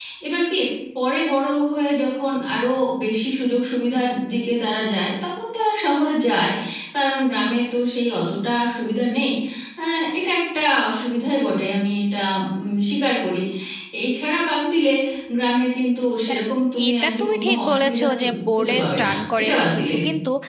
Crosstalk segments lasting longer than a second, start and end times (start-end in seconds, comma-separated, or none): 16.9-19.9